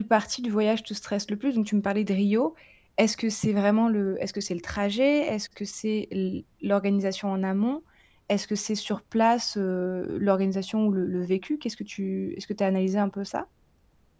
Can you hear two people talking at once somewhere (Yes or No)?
No